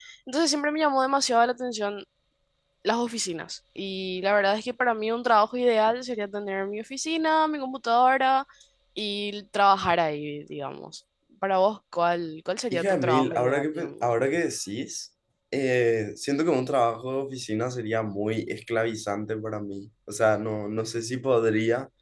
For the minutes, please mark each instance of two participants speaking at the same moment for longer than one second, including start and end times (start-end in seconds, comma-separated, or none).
12.7-14.0